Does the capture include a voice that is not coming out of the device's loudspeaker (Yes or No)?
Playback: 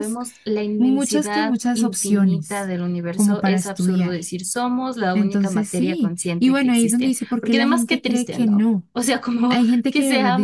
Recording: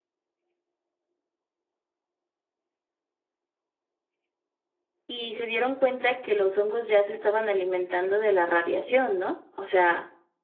Yes